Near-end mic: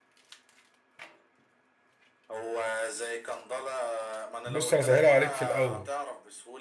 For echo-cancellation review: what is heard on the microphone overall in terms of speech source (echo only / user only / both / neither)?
both